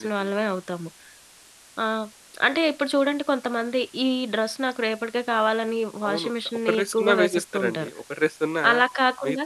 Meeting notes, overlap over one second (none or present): present